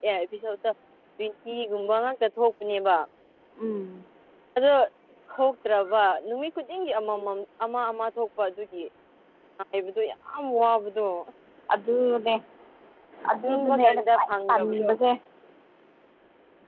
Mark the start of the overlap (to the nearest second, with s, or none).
13 s